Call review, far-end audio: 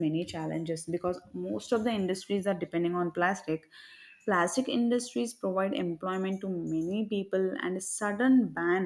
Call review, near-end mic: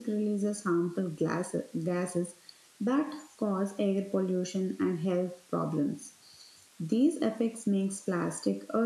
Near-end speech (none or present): present